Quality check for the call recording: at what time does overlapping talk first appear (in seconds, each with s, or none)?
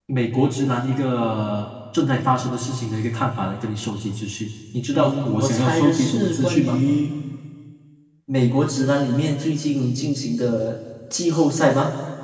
4.9 s